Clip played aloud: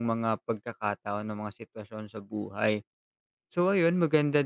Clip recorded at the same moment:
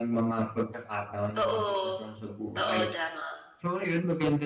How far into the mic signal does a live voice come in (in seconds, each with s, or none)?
1.4 s